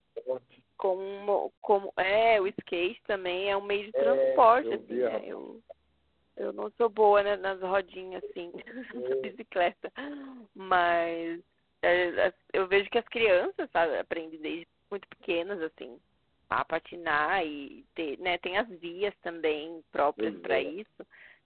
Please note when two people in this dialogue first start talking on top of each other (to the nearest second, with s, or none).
4 s